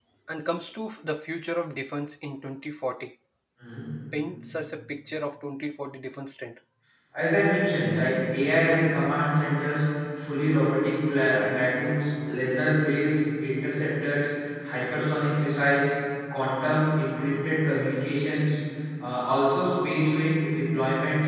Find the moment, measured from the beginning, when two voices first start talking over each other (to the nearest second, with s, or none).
none